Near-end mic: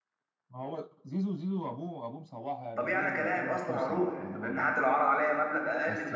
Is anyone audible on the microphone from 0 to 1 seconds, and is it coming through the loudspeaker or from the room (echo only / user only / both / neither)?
echo only